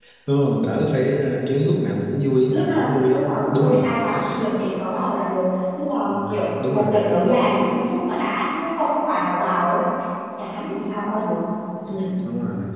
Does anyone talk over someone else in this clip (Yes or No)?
Yes